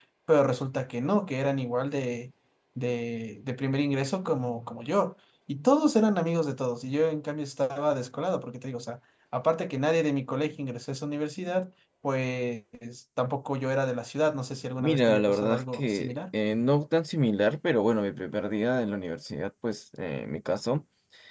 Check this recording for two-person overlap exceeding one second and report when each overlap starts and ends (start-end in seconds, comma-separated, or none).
14.8-16.1